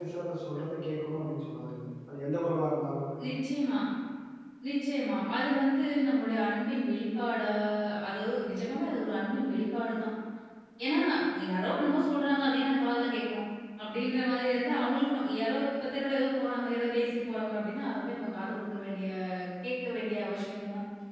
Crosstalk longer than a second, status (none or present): none